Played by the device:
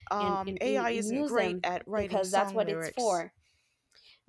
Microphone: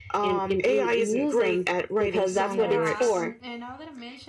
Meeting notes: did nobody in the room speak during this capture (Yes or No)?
No